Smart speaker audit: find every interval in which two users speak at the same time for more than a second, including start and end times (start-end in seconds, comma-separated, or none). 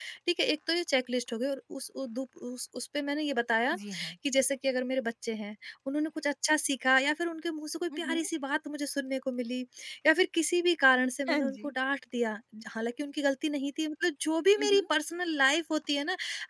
none